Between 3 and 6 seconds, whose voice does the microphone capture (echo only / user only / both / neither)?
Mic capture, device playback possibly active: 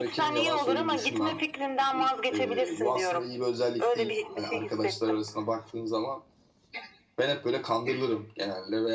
both